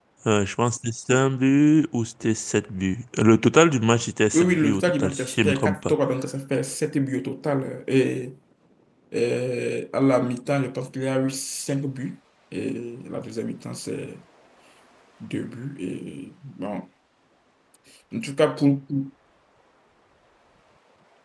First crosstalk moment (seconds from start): 4 s

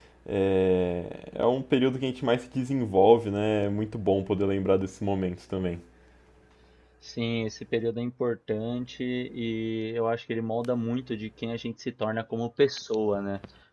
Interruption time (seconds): none

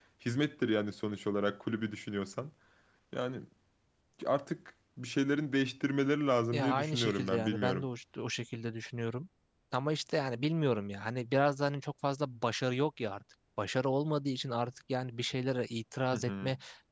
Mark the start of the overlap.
7 s

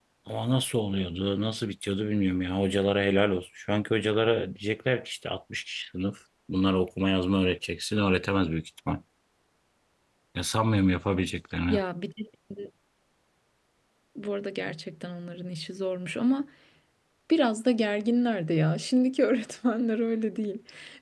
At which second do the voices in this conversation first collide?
none

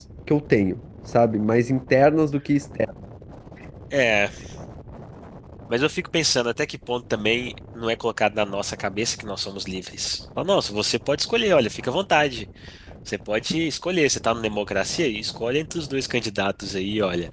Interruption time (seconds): none

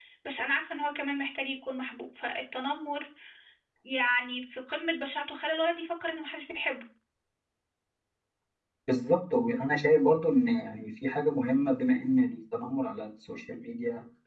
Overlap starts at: none

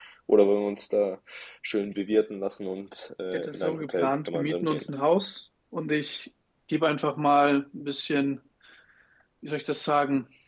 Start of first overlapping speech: 3 s

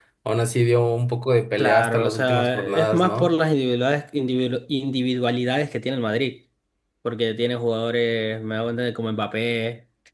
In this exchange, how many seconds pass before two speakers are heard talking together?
2 s

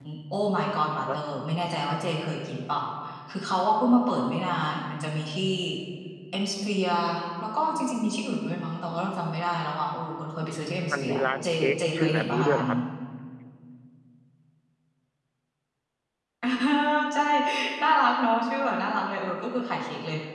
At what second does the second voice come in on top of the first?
11 s

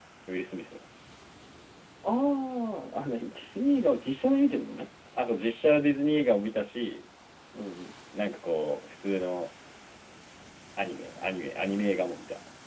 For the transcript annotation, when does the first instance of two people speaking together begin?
none

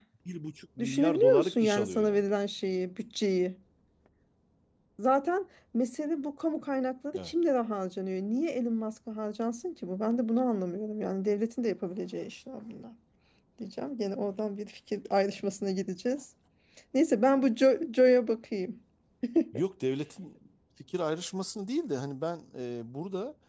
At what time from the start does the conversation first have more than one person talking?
1 s

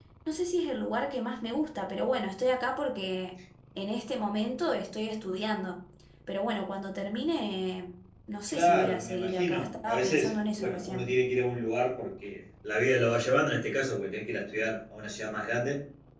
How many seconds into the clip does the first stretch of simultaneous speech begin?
8 s

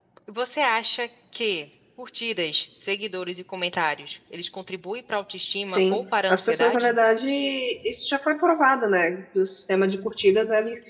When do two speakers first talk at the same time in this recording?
6 s

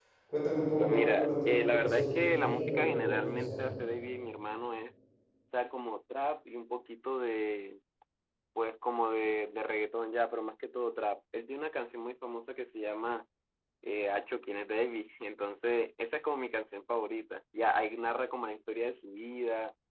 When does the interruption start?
1 s

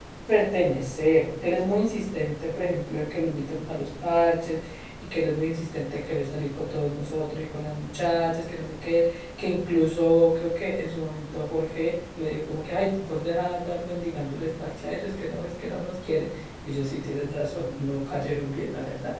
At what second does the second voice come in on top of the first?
none

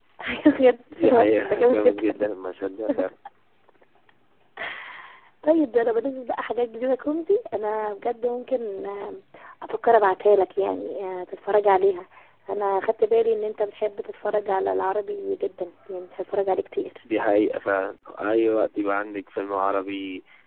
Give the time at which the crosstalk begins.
1 s

